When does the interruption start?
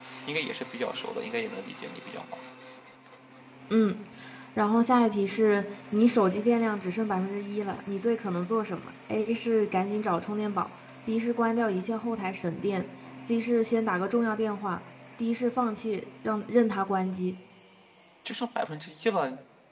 none

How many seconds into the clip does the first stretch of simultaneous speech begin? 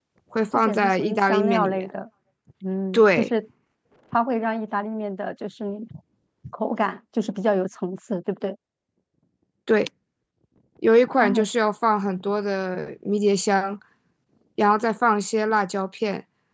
1 s

